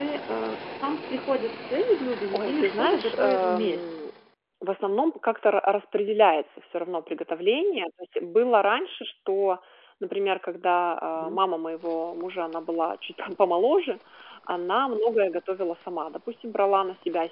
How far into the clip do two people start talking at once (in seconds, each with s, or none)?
2.3 s